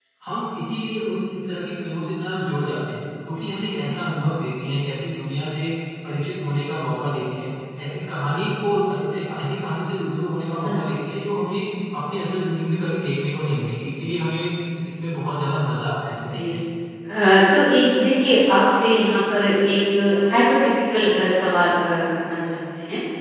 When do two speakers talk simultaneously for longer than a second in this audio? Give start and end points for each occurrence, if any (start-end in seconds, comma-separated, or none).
none